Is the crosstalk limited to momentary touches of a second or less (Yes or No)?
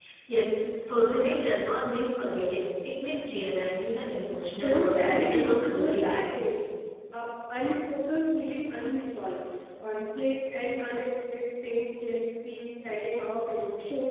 No